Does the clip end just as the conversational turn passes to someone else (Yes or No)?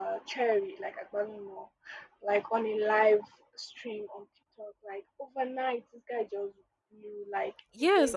Yes